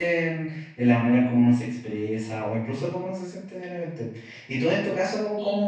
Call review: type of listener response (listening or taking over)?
listening